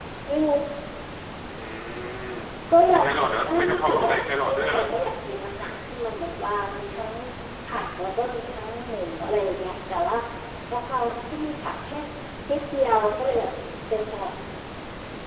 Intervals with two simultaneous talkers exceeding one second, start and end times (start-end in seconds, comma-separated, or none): 3.5-4.8